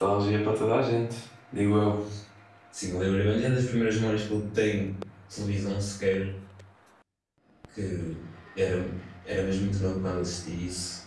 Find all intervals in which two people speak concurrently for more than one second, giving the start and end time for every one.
none

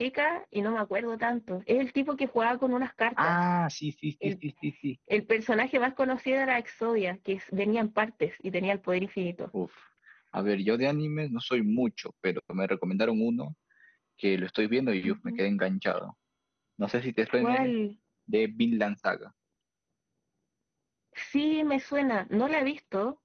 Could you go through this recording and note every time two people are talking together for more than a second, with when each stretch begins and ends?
none

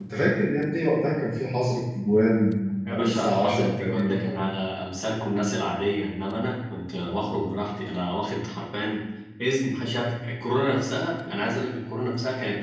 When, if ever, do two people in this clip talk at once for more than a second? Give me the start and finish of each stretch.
2.9-4.3

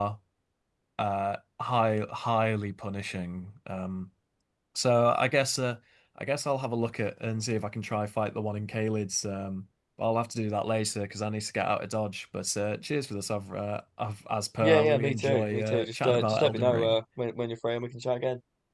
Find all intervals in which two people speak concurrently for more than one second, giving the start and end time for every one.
14.6-17.0

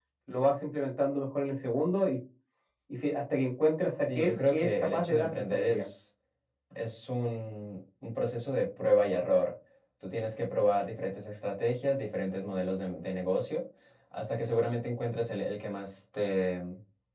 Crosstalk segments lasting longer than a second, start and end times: 4.2-5.9

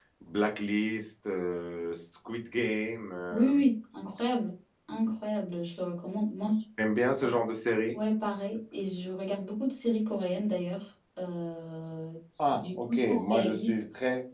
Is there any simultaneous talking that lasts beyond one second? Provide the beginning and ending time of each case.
12.5-13.8

